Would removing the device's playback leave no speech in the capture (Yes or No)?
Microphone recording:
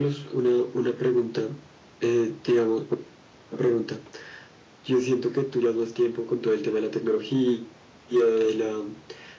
Yes